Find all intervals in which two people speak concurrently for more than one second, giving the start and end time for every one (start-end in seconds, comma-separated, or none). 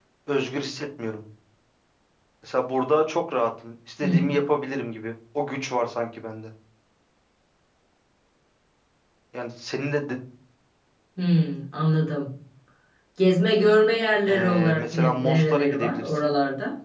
14.3-16.3